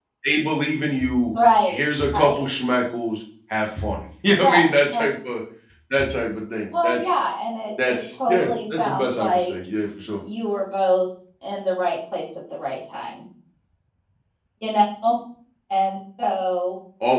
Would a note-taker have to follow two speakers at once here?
Yes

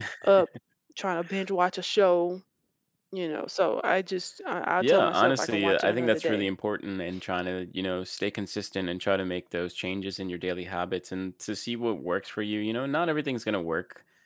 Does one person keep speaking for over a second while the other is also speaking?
Yes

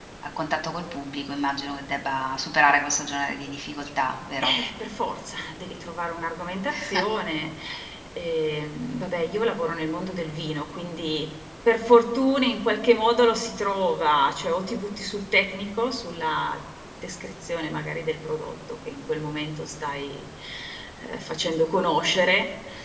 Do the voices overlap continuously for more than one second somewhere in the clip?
No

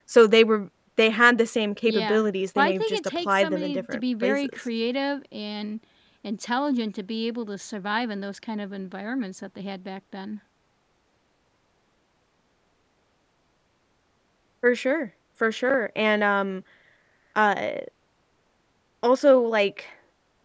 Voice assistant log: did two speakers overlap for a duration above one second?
Yes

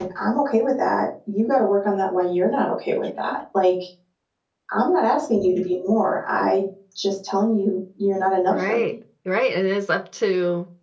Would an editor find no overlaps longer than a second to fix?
Yes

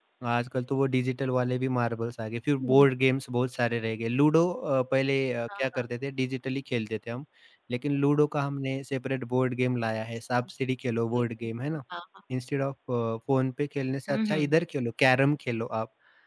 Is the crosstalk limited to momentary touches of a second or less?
Yes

